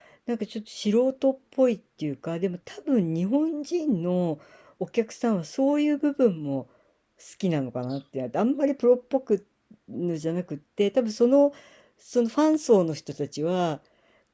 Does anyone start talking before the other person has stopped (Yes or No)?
No